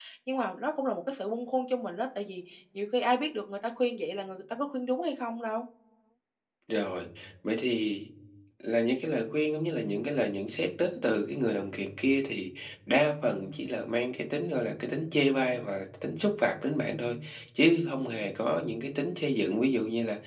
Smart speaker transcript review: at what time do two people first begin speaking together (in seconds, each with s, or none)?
none